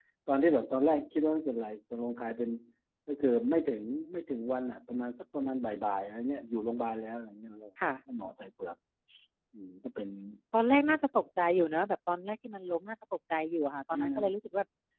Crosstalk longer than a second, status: none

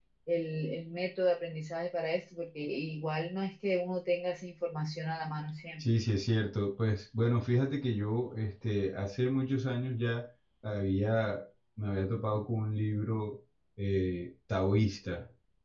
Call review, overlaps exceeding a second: none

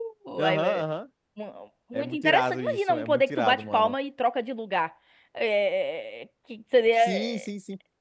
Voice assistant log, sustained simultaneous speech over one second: present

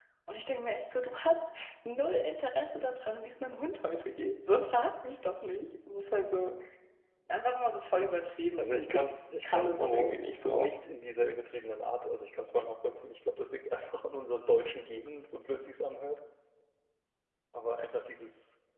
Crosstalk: present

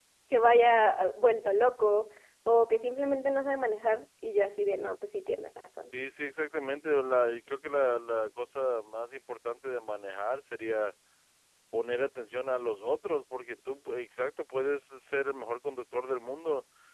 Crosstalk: none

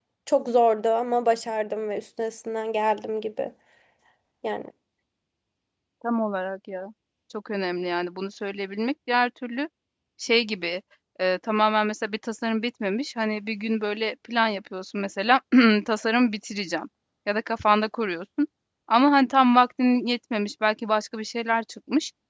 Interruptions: none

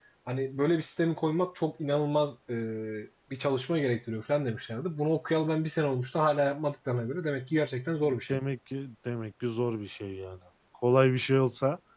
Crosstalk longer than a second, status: none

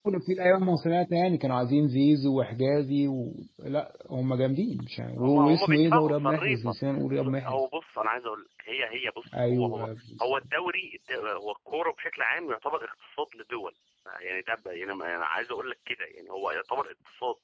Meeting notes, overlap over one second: present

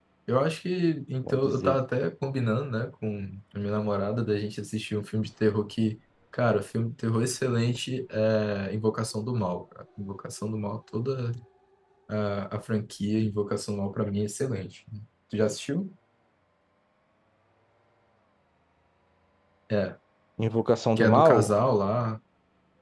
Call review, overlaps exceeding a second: none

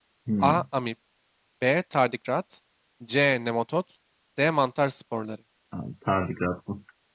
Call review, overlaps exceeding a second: none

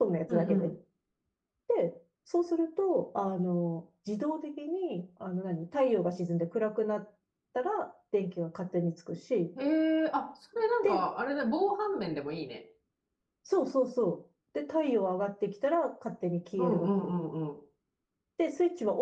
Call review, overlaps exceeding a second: none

